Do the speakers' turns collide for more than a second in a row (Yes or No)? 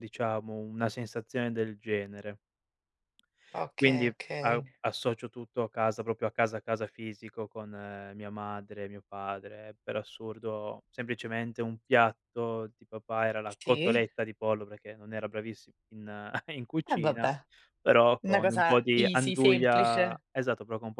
Yes